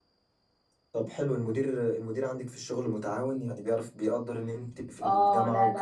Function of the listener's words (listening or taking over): taking over